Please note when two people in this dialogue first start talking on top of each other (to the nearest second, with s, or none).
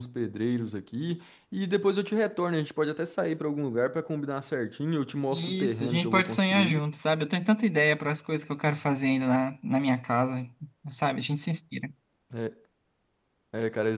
5 s